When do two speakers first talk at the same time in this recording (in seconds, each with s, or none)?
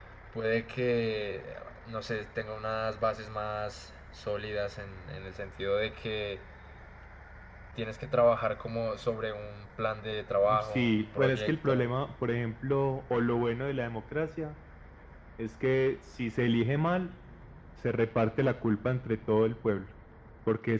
10.4 s